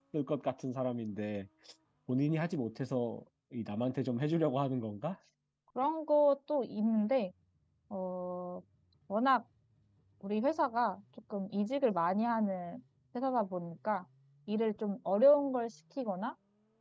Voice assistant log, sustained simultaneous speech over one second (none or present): none